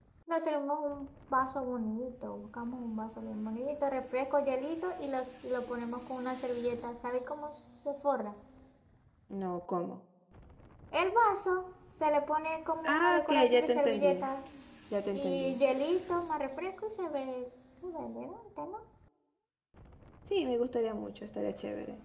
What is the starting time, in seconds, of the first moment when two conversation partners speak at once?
13 s

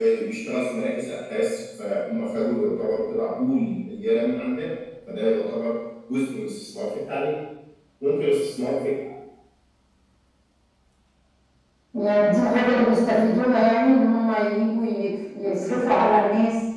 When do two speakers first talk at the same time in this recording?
none

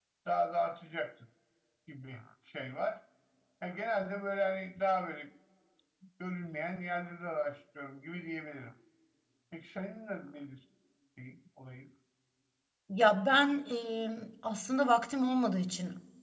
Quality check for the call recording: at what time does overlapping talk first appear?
none

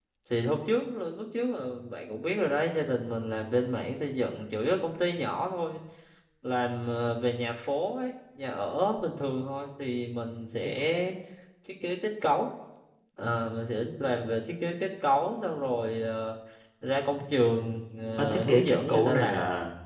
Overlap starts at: 18 s

